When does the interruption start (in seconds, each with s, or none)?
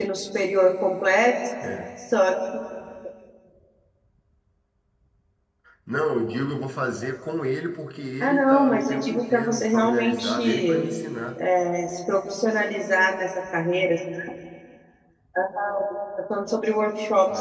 8.2 s